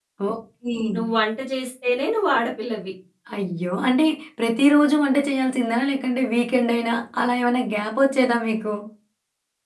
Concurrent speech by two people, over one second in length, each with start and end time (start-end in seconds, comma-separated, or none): none